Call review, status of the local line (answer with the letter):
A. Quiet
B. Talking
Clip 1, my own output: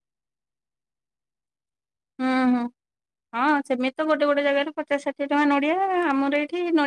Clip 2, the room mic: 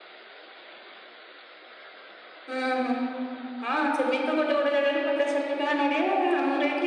A